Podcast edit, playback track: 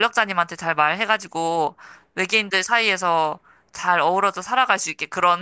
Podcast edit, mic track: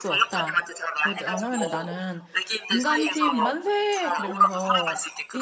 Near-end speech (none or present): present